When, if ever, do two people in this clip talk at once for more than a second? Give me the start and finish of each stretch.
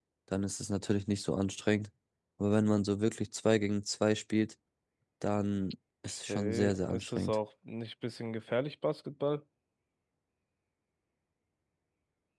6.0-7.4

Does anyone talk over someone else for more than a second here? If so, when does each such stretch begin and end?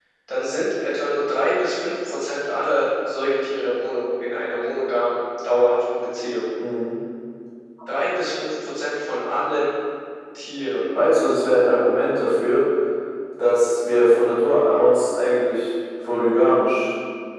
none

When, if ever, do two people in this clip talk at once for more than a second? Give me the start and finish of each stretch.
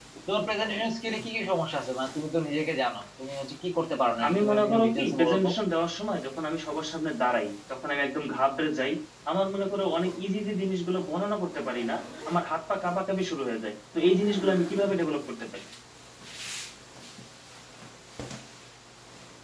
4.3-5.5

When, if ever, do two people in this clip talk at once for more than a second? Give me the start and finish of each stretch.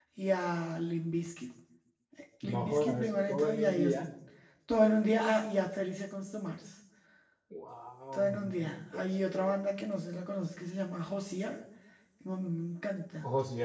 2.4-4.1, 8.1-9.6

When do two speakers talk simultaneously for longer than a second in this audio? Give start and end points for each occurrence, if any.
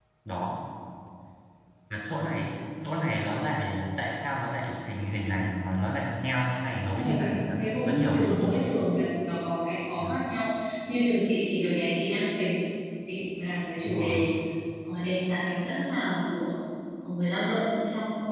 7.0-8.7

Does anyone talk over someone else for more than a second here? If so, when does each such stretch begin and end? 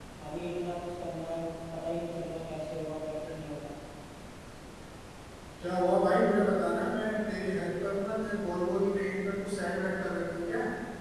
none

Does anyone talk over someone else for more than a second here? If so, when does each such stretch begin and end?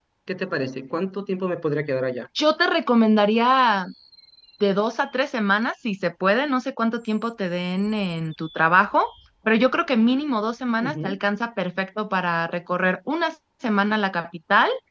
none

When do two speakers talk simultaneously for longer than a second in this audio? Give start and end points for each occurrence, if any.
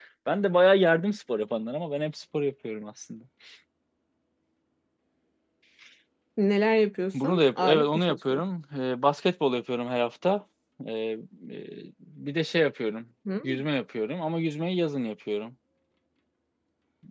7.1-8.4

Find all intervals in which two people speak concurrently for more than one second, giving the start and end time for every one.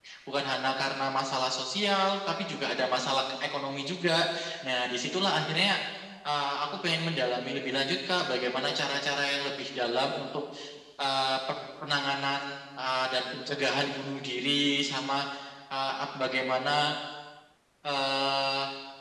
none

